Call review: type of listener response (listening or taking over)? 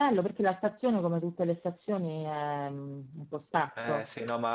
taking over